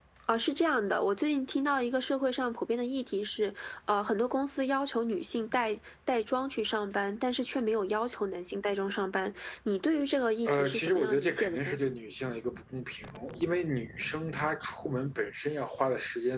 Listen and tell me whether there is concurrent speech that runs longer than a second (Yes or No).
Yes